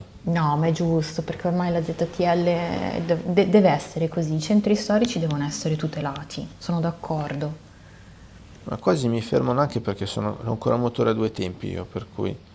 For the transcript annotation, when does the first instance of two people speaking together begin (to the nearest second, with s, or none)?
none